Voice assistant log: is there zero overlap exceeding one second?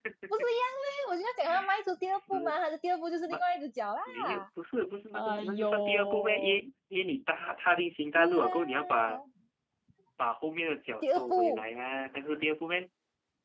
No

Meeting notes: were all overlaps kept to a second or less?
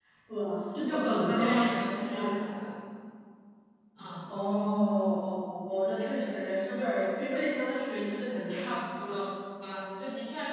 No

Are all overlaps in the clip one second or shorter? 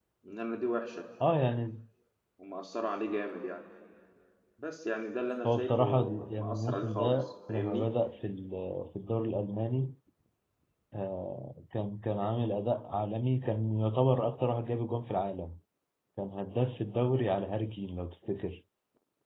No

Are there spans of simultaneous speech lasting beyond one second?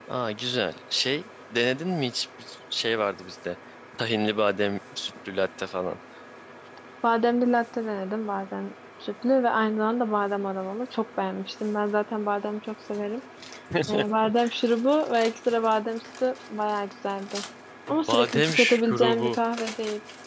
Yes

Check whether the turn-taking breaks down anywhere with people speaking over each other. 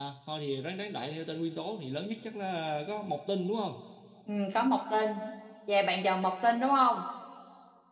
No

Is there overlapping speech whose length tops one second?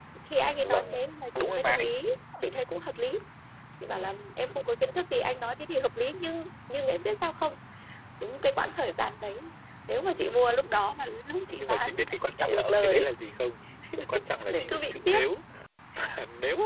Yes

